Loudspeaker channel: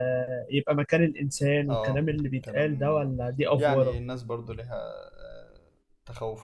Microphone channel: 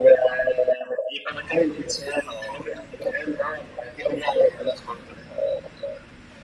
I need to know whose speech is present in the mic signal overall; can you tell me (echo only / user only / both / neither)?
echo only